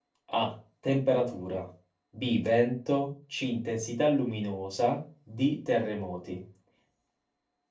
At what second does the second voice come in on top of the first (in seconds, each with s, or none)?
none